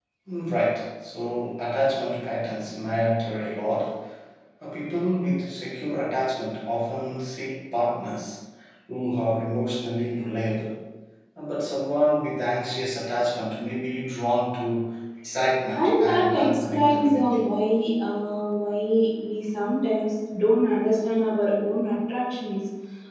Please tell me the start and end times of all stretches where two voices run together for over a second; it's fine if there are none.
15.8-17.4

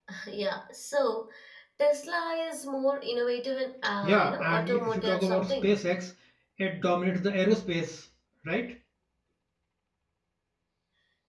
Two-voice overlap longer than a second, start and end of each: 4.0-5.8

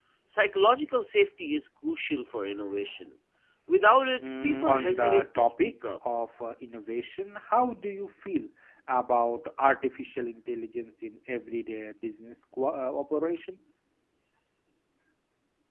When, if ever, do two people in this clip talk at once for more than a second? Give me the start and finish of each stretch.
4.4-6.0

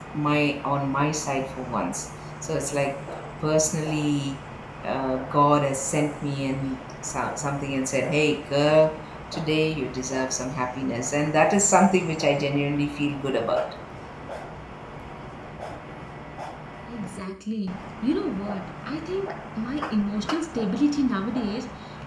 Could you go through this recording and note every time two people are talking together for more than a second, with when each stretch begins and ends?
none

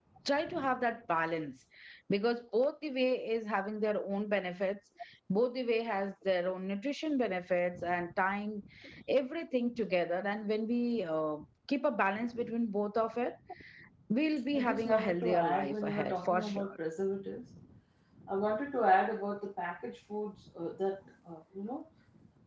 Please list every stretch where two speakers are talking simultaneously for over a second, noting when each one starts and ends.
14.5-16.7

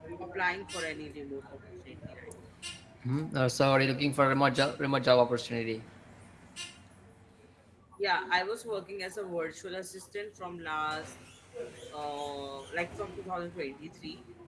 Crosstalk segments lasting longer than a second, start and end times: none

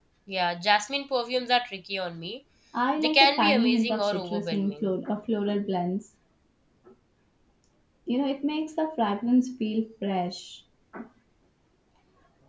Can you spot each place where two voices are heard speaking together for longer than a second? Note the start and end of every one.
3.0-4.9

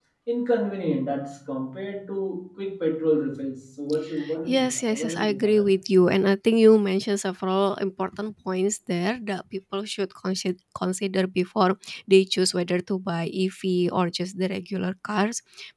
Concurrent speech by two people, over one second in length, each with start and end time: 4.4-5.6

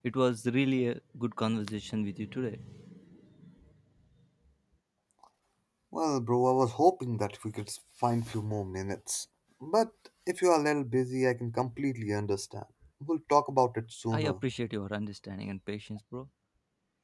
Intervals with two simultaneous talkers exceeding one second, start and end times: none

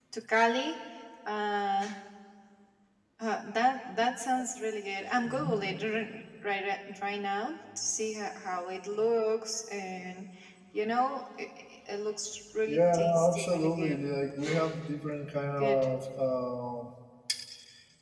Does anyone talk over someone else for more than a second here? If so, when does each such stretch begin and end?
12.7-14.0

